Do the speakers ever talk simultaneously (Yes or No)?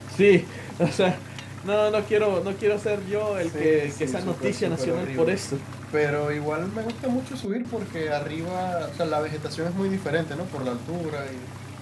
Yes